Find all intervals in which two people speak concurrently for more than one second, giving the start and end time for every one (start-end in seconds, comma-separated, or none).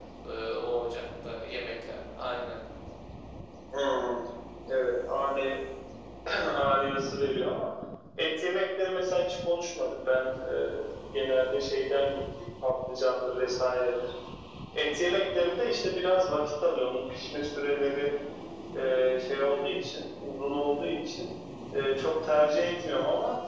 none